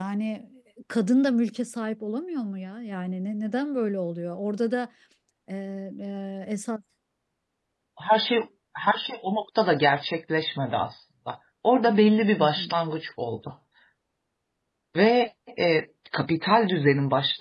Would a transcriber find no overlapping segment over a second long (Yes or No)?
Yes